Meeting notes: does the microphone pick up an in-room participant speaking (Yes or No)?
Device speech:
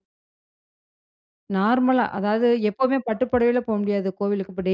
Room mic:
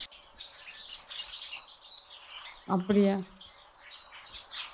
Yes